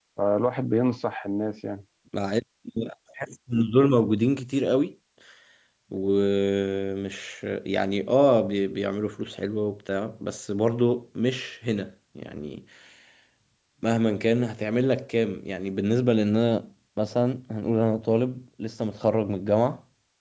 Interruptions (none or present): none